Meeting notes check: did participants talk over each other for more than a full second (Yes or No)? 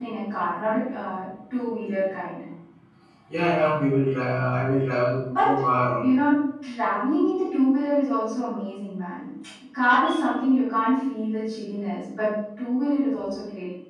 No